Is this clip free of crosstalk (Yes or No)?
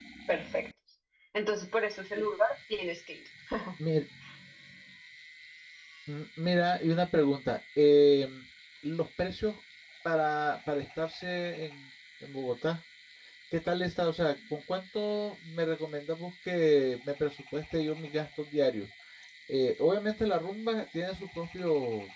Yes